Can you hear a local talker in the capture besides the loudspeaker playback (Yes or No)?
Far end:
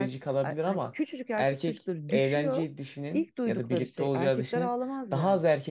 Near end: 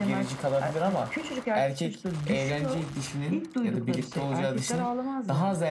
No